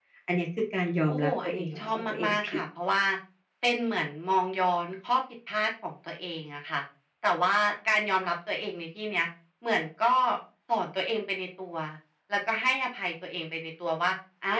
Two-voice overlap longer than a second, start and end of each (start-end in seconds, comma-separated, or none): 1.1-2.6